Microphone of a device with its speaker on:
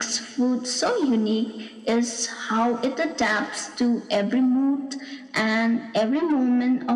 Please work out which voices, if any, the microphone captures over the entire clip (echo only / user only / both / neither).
echo only